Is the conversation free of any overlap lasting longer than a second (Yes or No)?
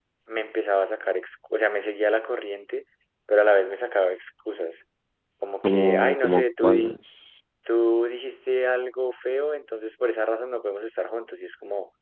No